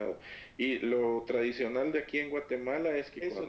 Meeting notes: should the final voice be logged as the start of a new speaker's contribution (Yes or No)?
Yes